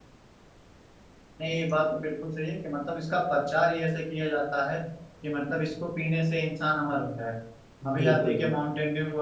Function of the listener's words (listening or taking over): listening